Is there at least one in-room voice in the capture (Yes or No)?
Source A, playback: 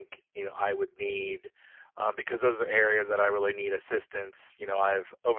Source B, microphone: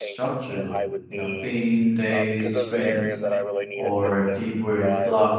Yes